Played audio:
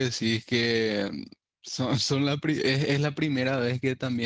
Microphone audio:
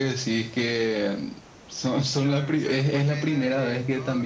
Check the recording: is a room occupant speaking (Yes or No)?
Yes